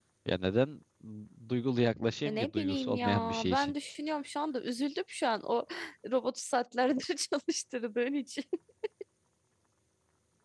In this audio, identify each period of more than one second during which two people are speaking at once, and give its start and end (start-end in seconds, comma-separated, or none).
2.2-3.7